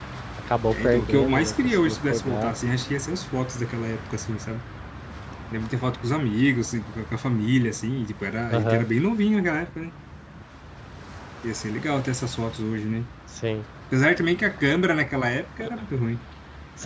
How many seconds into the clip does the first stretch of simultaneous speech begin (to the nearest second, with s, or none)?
1 s